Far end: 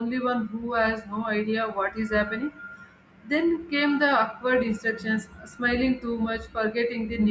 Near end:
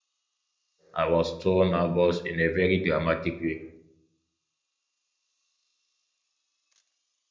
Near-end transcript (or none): I was so nervous in a very dramatic way.